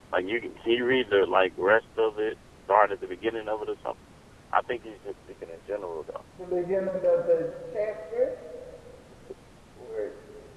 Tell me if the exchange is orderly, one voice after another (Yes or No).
Yes